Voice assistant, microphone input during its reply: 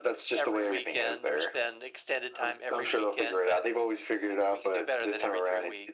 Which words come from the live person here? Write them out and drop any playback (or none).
none